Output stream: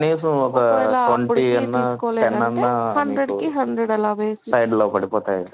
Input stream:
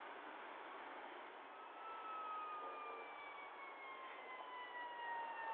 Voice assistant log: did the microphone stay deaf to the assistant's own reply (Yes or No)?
Yes